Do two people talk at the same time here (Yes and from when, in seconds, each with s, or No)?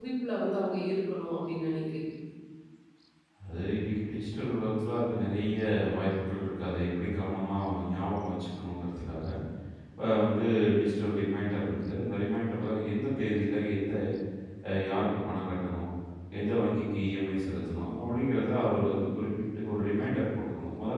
No